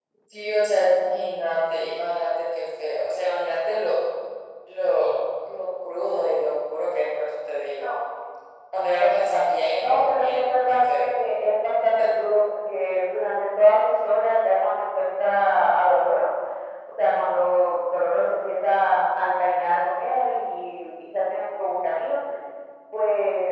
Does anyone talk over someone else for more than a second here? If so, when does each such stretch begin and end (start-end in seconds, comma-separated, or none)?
9.8-11.0